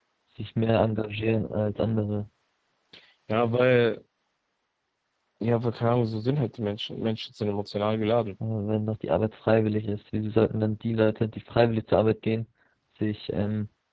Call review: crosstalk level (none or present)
none